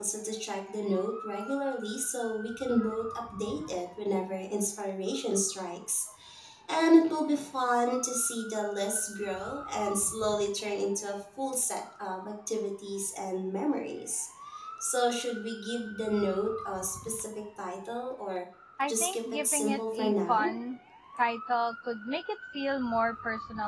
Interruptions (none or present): present